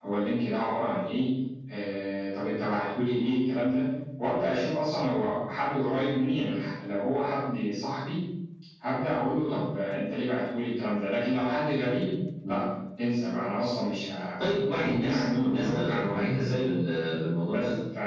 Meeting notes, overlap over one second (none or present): present